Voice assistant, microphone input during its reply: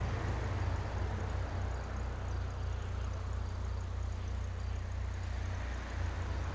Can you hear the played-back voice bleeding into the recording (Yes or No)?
No